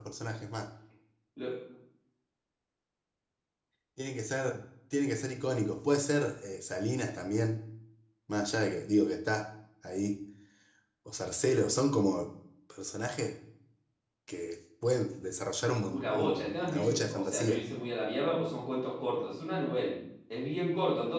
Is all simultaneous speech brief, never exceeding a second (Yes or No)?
No